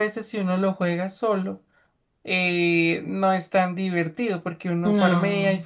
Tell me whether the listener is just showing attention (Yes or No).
Yes